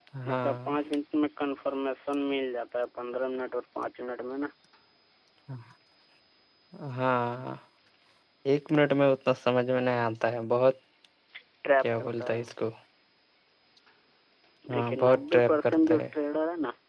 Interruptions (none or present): present